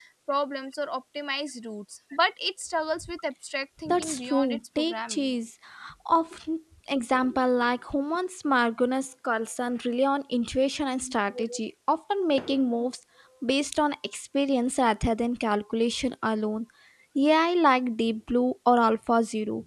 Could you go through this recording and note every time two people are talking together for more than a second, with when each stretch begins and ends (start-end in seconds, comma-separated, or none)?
3.9-5.3